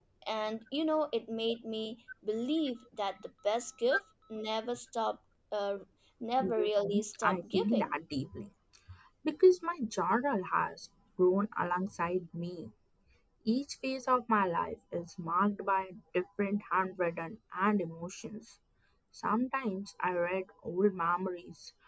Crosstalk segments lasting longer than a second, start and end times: 6.4-8.0

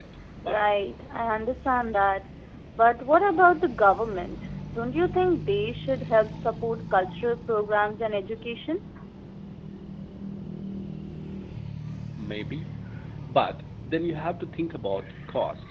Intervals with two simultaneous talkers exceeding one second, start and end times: none

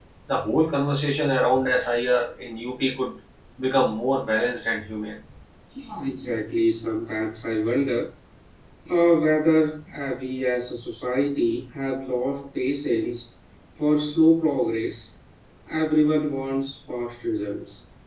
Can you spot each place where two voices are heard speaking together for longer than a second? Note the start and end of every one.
none

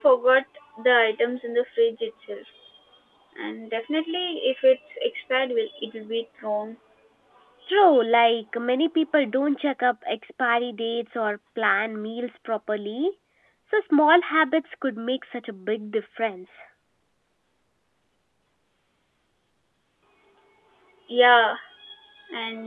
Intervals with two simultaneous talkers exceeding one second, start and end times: none

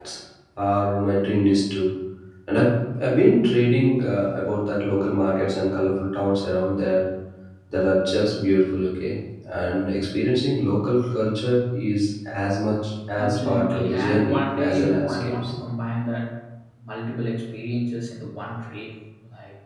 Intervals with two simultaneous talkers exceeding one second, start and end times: 13.2-15.5

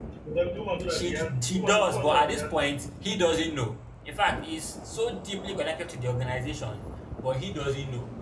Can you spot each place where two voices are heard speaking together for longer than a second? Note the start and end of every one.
0.9-2.8

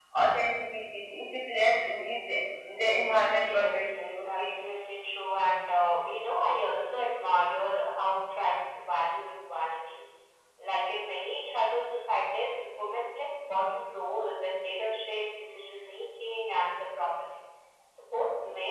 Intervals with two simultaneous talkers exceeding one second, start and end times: 3.2-4.6

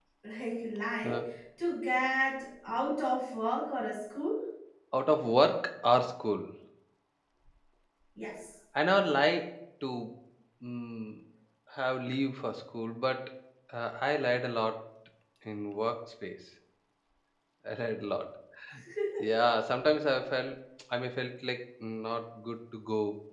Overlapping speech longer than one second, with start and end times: none

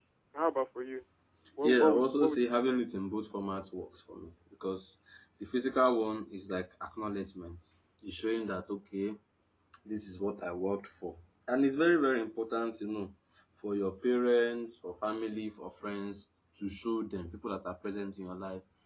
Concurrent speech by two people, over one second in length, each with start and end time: 1.6-2.8

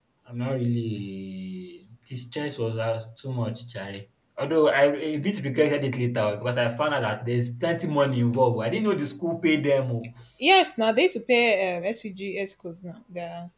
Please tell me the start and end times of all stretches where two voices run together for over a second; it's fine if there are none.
none

